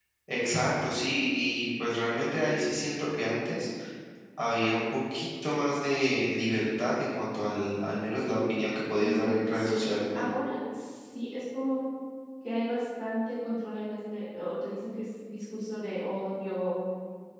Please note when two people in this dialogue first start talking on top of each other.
8.9 s

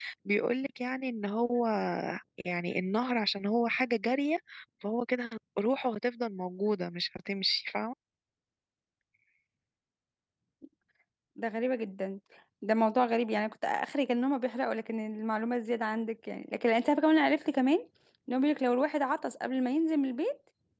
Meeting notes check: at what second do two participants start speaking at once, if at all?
none

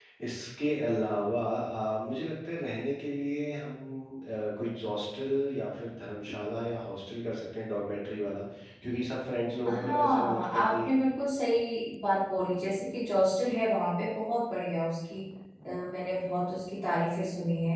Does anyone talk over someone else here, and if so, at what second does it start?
9.7 s

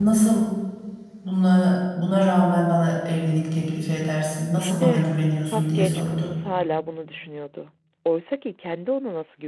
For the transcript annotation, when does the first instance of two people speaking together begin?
4.5 s

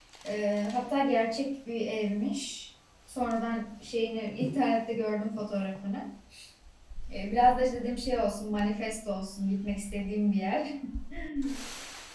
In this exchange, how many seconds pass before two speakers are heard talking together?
none

